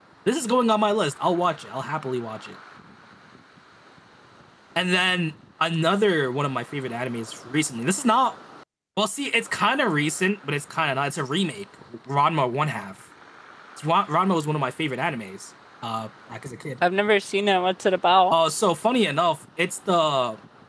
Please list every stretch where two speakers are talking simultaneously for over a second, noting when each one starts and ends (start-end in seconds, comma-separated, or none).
none